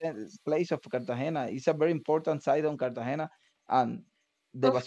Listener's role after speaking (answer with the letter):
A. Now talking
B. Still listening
B